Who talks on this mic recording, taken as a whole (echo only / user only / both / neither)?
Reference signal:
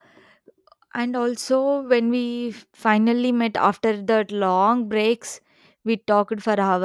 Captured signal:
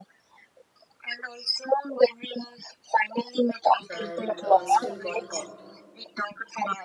both